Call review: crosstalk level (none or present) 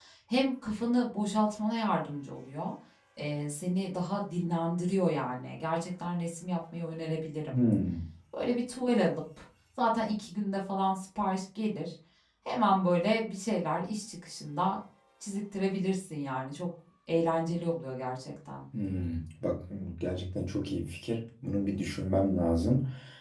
none